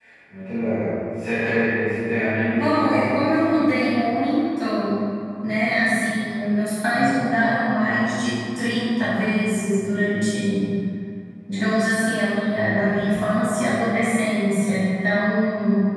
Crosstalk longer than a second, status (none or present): present